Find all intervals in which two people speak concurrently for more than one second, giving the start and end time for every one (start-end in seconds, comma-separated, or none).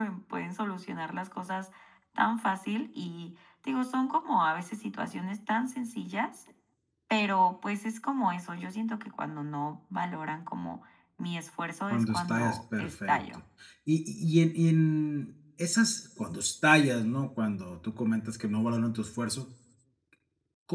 11.9-13.2